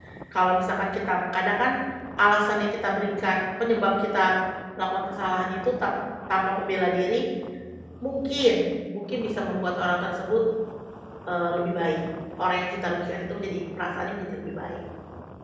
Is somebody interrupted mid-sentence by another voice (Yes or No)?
No